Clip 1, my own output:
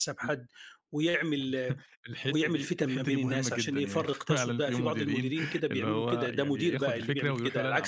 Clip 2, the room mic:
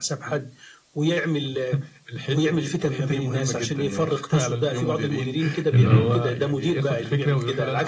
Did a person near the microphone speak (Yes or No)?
Yes